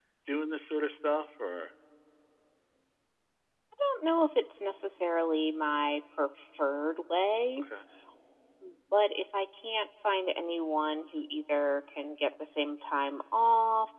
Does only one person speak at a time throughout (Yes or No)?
Yes